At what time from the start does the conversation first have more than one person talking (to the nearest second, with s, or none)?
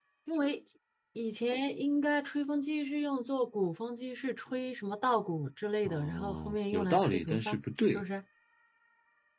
6 s